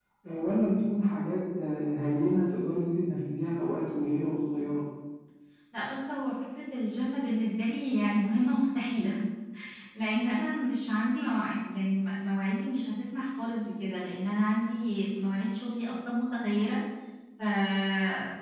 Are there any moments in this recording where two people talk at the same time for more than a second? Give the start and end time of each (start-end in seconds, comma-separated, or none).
none